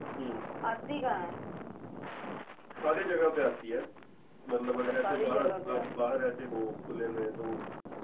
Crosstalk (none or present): present